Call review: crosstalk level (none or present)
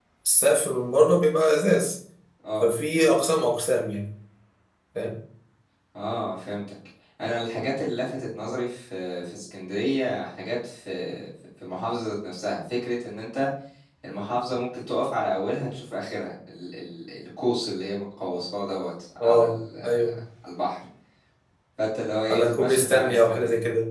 present